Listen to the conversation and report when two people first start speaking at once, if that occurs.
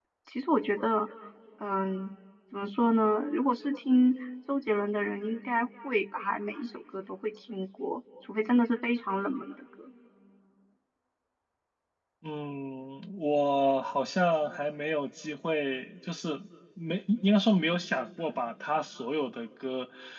none

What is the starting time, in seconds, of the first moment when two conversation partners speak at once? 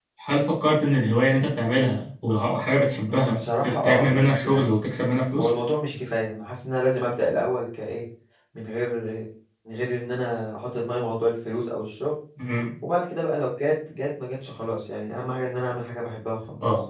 3 s

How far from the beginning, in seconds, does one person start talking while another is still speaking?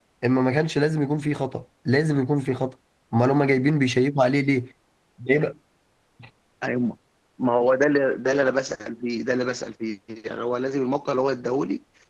none

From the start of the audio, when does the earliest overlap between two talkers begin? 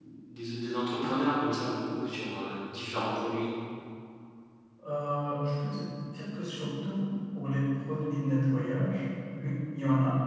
none

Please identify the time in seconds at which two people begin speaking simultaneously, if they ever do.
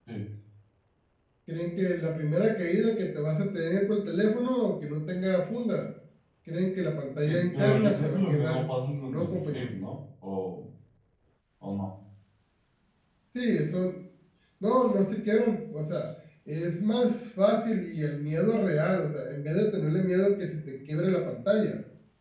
7 s

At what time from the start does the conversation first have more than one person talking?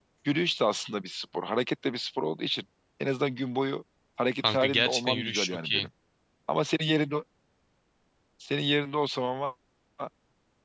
4 s

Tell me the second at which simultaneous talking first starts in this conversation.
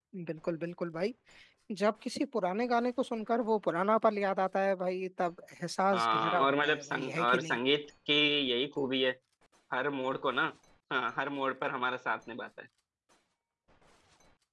6 s

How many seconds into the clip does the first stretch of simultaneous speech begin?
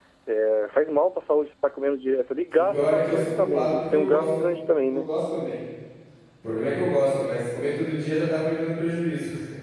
3 s

